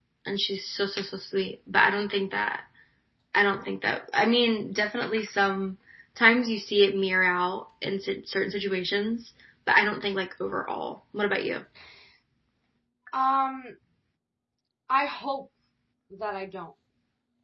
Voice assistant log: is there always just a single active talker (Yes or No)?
Yes